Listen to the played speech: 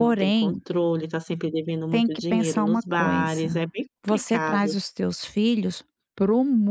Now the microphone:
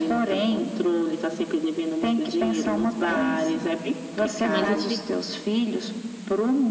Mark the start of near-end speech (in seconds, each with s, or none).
4.5 s